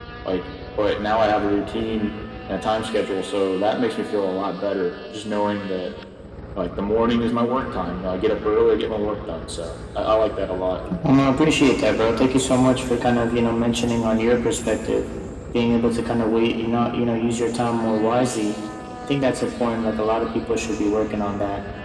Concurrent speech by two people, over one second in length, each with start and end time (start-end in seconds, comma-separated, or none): none